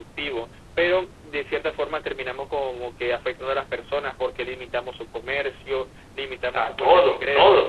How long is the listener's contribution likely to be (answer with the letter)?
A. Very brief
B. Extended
B